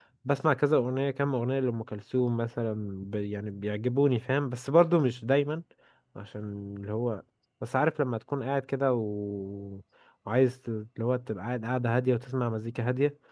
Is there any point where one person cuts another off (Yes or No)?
No